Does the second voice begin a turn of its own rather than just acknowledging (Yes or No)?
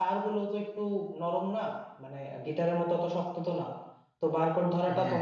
No